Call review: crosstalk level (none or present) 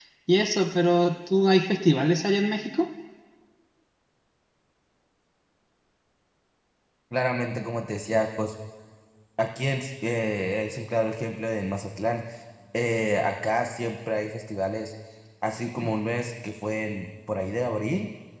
none